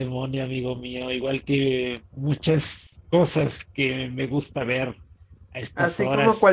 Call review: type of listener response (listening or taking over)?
taking over